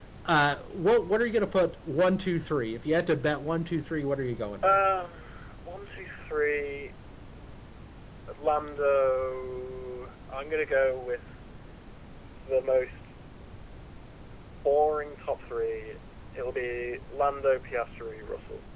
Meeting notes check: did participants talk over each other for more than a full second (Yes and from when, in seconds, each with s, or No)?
No